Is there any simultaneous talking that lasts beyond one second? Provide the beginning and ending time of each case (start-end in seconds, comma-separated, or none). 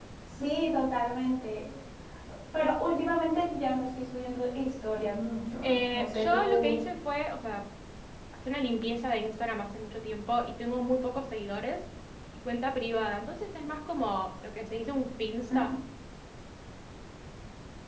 5.6-6.8